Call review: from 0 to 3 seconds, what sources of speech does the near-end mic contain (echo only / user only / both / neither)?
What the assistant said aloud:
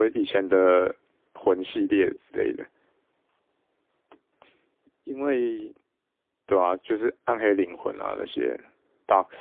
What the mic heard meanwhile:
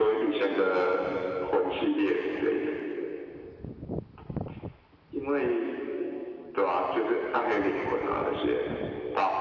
echo only